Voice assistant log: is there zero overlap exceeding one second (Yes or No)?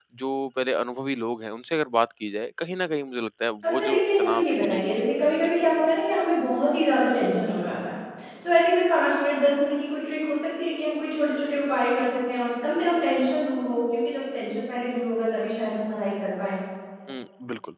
No